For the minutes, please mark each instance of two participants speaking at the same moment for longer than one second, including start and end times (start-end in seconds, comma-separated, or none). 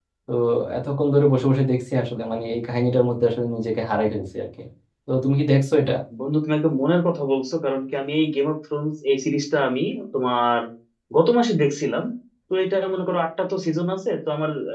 none